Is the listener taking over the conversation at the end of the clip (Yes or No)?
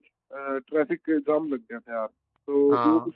No